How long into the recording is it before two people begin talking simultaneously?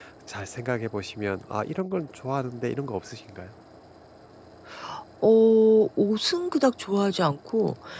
none

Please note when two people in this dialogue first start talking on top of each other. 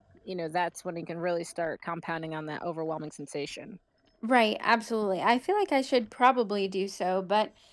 none

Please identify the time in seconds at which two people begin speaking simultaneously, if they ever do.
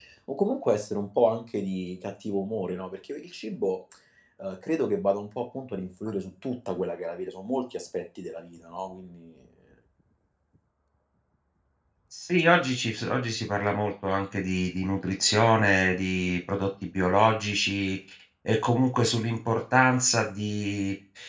none

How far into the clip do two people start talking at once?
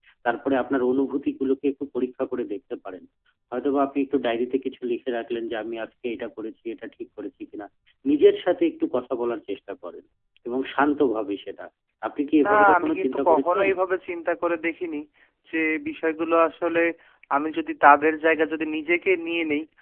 12.4 s

